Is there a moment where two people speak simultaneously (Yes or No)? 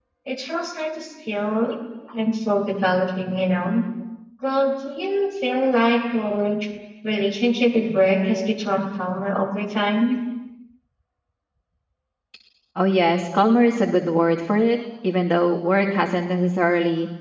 No